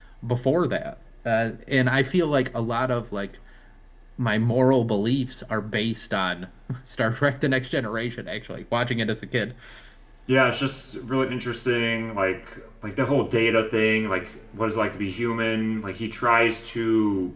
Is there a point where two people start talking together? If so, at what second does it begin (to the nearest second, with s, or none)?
none